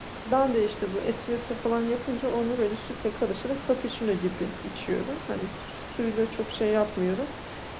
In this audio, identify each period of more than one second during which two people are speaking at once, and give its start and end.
none

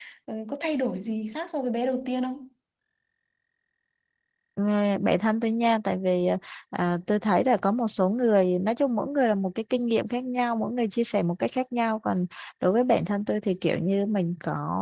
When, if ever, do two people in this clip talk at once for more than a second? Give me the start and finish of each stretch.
none

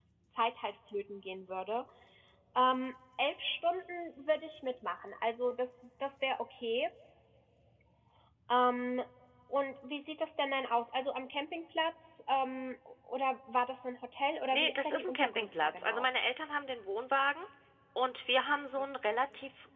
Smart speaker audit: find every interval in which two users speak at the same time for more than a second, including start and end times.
14.5-16.1

